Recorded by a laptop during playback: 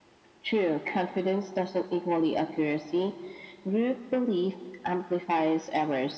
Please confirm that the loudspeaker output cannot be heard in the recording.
No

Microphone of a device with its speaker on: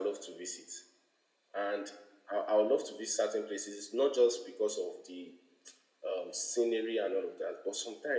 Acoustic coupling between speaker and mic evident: Yes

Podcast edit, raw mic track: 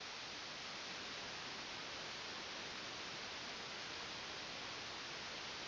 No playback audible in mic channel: Yes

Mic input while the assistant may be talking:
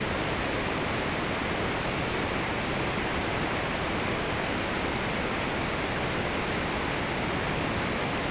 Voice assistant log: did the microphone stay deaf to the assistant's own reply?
Yes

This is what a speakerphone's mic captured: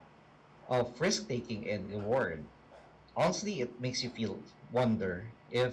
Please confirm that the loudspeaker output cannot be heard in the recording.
Yes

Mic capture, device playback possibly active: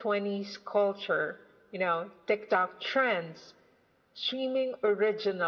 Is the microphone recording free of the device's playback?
No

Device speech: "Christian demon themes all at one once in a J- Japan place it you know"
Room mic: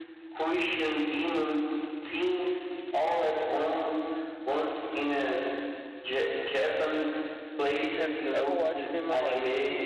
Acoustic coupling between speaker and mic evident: Yes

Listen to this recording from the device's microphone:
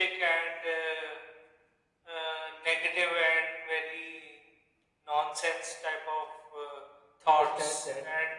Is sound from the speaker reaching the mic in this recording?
Yes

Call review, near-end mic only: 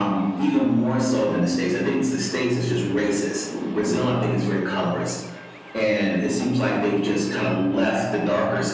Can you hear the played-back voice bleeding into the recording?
Yes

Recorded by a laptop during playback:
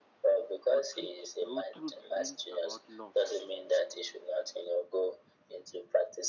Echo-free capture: No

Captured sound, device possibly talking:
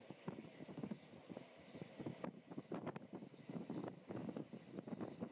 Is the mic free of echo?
Yes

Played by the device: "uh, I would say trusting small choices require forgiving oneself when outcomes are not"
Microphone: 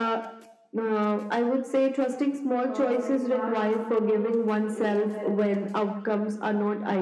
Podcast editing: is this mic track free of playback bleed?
No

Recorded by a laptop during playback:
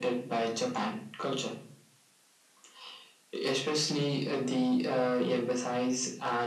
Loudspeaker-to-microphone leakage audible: Yes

